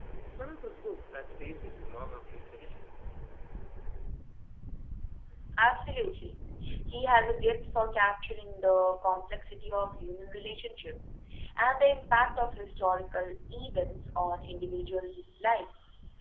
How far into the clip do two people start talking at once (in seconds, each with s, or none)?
none